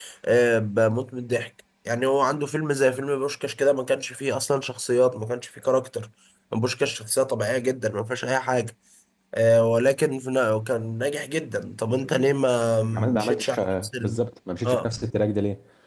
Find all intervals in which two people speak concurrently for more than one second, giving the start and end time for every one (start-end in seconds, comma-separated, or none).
12.9-14.2